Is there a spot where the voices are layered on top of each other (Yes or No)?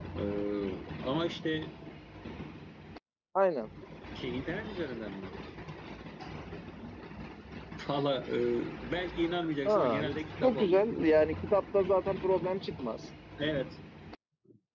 Yes